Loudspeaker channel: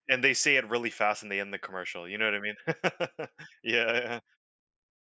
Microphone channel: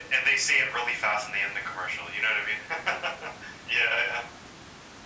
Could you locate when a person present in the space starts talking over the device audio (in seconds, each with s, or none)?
none